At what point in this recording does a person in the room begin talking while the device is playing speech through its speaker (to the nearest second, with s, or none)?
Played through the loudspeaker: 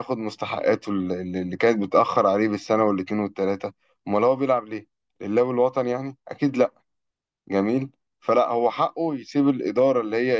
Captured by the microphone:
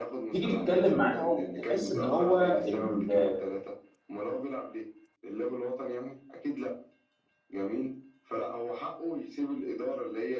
0 s